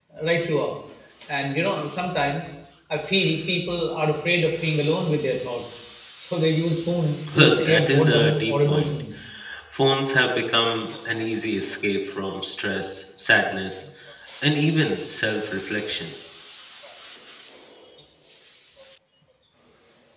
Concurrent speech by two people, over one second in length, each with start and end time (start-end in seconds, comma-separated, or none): 7.4-8.9